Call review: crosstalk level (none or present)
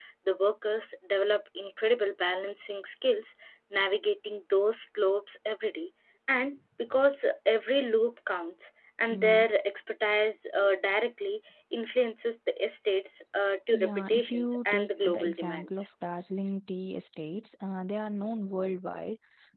present